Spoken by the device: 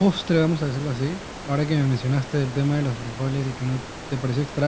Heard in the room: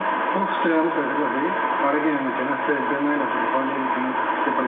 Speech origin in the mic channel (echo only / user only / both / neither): echo only